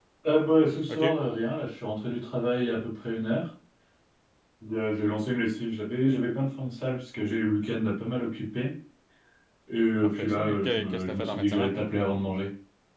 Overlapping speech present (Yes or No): Yes